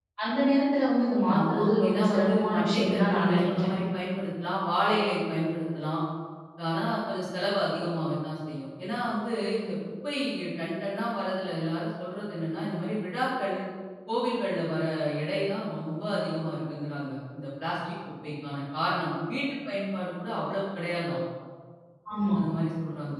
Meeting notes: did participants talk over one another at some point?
Yes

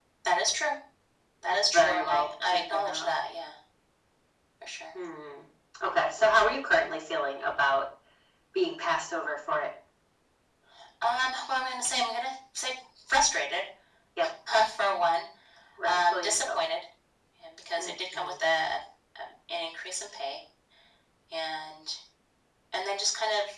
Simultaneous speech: Yes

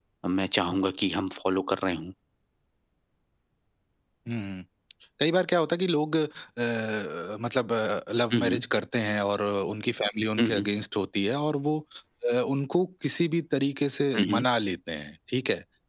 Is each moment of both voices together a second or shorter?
Yes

